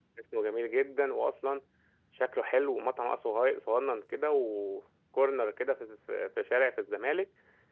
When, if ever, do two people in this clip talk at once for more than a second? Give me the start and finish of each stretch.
none

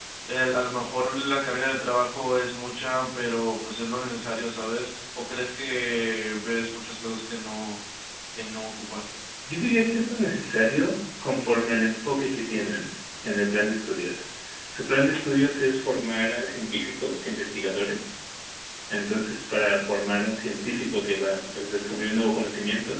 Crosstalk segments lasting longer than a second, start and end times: none

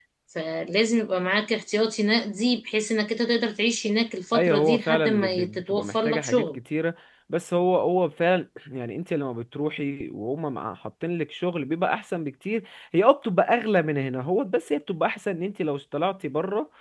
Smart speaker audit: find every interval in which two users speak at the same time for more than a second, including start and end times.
4.3-6.6

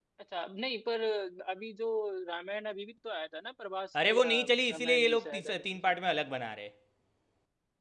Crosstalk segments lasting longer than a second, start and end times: 4.0-5.6

